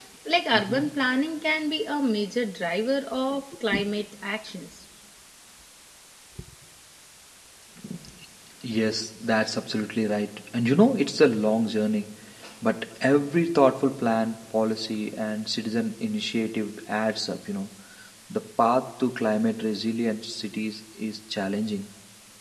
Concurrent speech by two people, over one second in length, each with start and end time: none

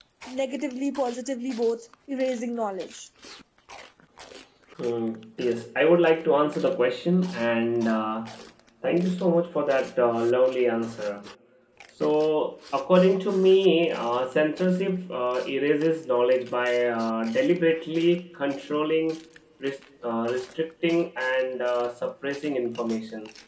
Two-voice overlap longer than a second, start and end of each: none

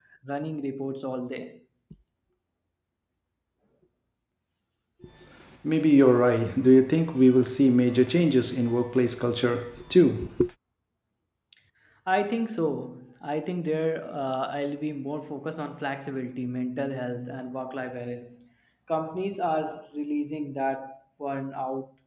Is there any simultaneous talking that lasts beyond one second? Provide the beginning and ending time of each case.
none

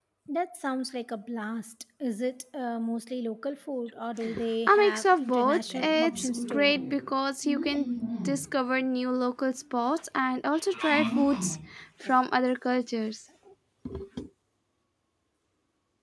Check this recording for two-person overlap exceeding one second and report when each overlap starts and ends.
4.7-6.7

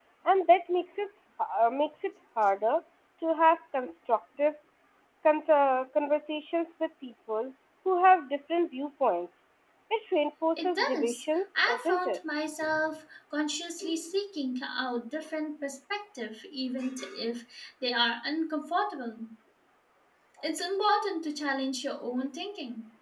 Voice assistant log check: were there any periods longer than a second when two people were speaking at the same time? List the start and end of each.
10.6-12.2

